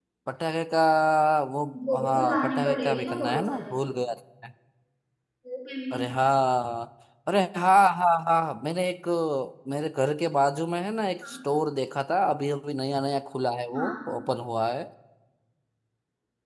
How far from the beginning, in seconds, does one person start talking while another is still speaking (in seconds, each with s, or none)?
1.9 s